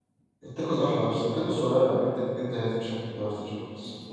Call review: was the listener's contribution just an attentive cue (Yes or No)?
No